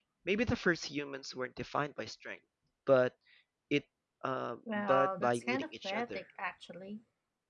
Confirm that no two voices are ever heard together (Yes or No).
No